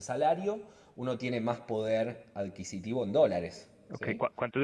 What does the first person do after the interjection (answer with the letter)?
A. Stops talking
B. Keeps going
A